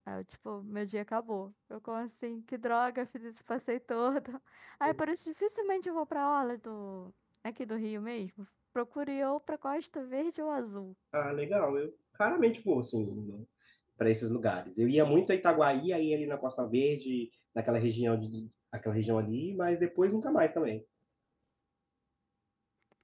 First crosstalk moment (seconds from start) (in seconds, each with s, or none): none